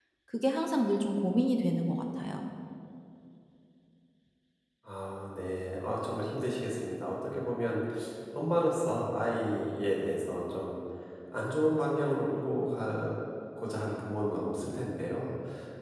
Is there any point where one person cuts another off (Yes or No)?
No